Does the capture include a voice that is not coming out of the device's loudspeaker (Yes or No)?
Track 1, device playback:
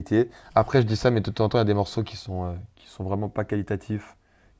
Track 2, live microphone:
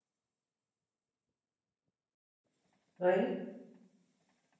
Yes